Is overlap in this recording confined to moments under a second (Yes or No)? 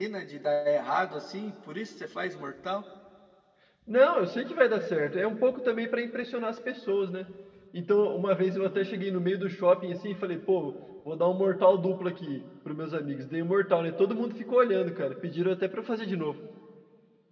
Yes